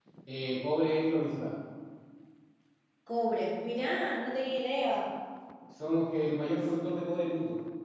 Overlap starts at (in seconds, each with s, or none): none